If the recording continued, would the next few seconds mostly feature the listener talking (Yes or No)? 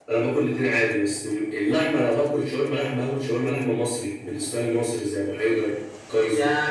Yes